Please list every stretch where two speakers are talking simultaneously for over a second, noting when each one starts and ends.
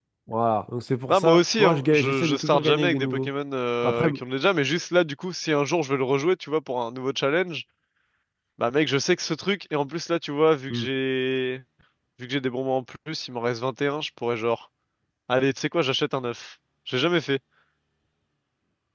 1.1-3.3

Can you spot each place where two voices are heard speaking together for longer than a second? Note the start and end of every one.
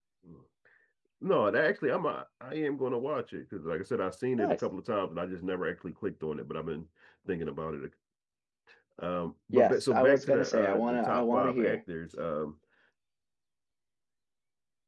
9.5-11.8

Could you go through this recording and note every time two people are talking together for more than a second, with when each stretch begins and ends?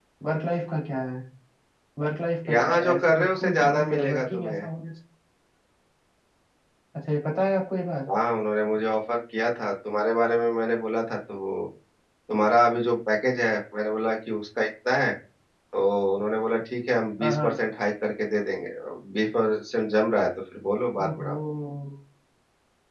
2.5-4.7

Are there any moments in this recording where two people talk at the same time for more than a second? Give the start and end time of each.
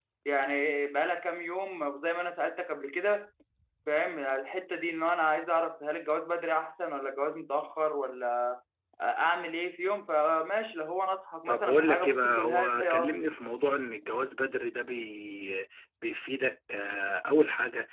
11.5-13.2

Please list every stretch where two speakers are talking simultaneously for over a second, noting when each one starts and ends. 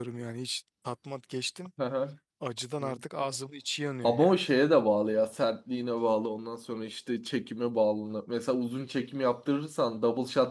none

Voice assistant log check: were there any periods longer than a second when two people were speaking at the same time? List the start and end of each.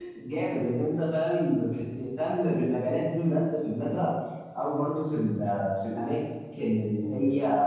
none

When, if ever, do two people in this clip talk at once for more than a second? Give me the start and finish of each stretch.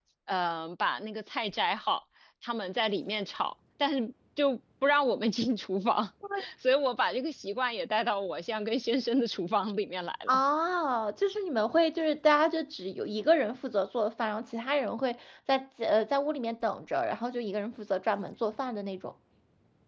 none

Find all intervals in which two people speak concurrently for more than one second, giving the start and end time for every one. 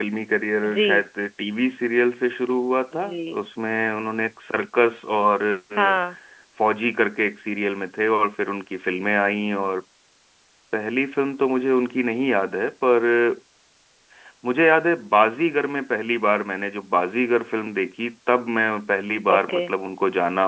none

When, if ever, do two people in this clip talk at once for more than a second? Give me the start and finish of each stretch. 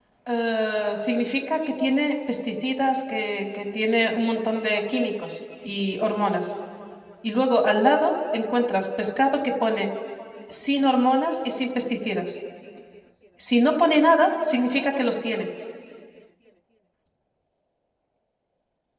none

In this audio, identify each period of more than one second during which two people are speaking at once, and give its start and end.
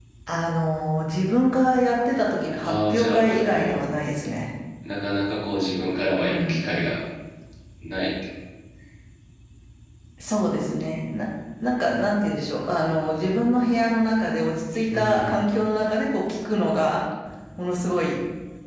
2.6-3.8

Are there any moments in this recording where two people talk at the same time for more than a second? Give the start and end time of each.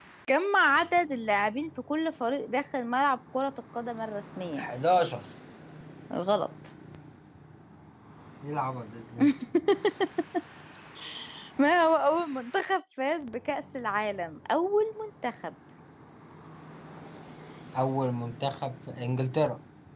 none

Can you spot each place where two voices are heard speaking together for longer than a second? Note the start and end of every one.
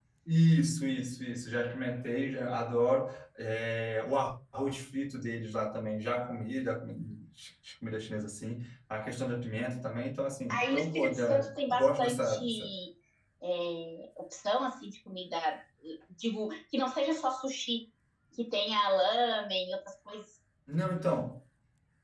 10.5-12.4

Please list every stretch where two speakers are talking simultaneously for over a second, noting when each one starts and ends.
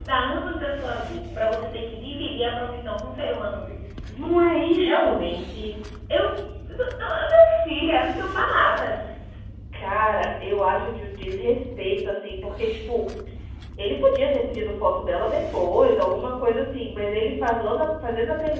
none

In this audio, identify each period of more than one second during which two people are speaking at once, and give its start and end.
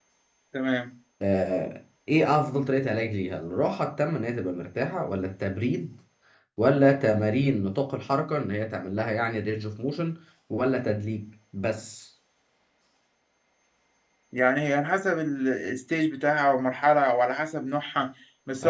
none

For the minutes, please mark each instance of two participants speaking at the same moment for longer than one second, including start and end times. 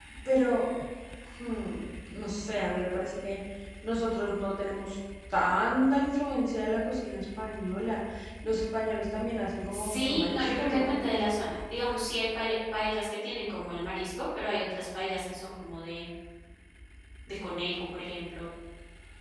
9.7-10.9

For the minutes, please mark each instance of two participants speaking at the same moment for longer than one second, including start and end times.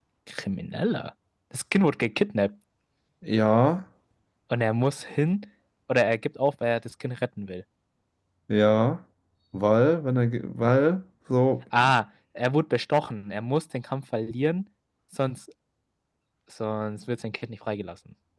none

